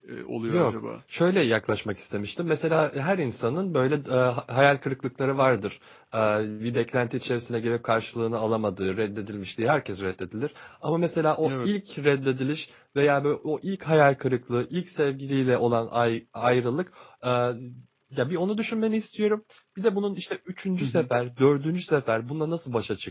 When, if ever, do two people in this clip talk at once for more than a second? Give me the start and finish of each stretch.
none

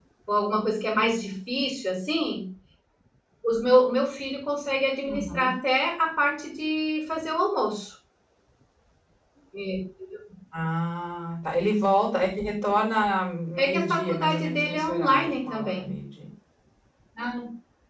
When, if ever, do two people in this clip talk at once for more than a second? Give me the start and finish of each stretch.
13.6-15.8

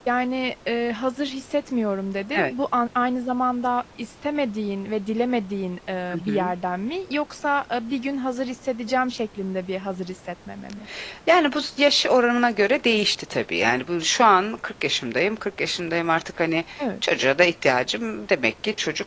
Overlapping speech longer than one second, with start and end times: none

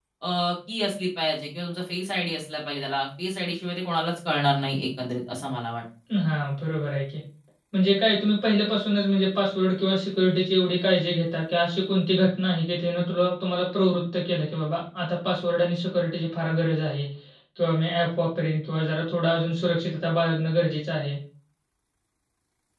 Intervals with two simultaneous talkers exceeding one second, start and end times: none

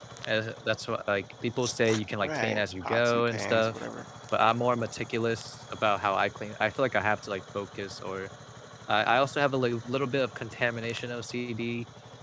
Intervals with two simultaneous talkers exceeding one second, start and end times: 2.2-3.8

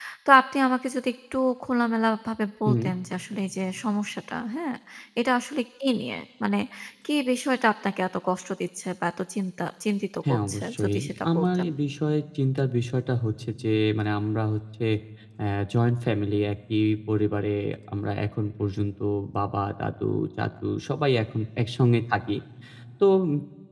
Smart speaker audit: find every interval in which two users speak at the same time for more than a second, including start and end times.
10.3-11.7

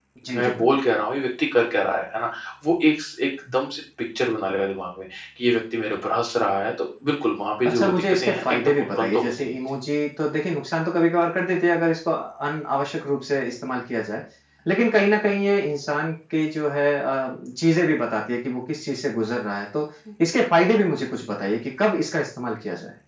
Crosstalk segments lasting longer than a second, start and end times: 7.6-9.5

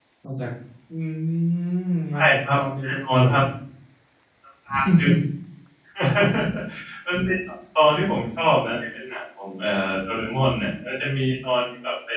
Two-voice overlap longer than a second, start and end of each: 2.1-3.4

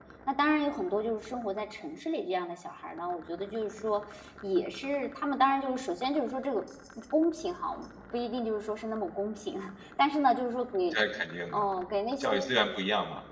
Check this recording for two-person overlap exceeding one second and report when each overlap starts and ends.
none

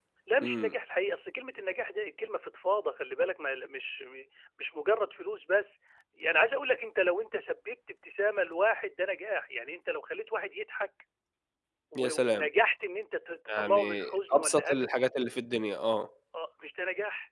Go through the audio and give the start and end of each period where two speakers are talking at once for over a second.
13.5-15.1

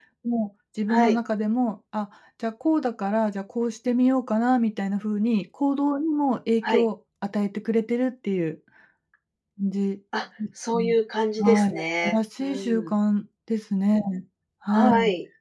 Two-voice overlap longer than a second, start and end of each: 11.4-12.9

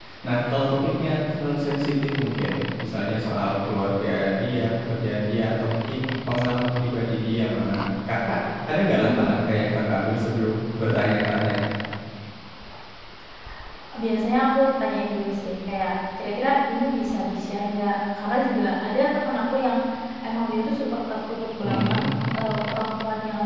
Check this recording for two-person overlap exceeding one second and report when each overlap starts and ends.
none

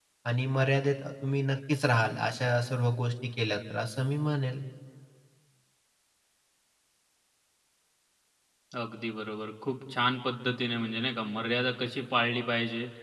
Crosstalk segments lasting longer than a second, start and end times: none

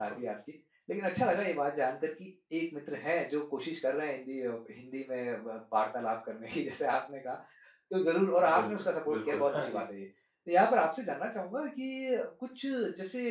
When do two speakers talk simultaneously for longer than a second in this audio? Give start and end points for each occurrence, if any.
8.6-9.8

